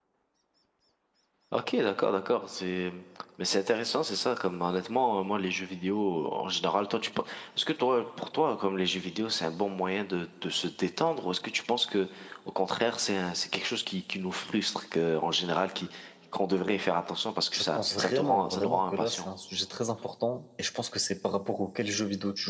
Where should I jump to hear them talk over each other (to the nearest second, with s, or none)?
18 s